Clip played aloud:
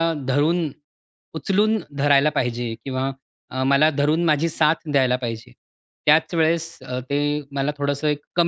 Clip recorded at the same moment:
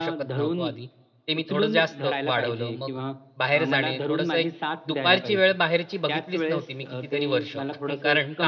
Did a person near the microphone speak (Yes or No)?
Yes